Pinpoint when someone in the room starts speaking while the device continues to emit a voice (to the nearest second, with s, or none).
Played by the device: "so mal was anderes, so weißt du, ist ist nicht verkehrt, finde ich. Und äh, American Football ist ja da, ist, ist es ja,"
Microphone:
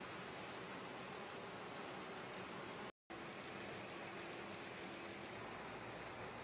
none